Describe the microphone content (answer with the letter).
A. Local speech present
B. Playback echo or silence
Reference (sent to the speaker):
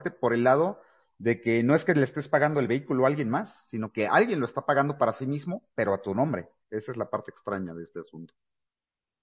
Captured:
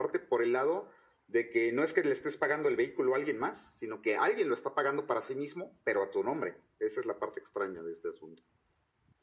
B